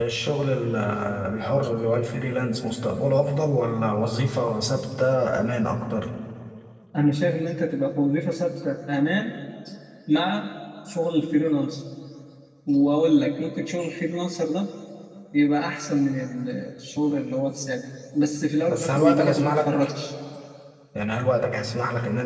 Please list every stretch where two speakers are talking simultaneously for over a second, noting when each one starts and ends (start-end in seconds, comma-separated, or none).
18.7-19.9